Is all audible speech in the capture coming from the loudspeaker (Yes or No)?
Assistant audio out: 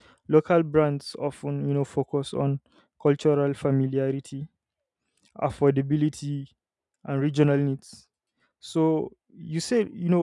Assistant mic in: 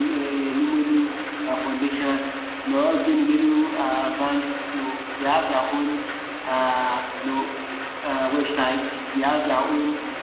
No